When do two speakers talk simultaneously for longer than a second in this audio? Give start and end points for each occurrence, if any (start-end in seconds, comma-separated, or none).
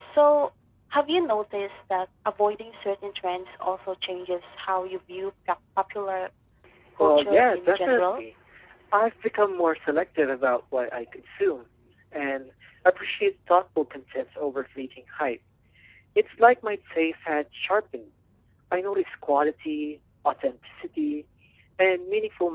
7.0-8.2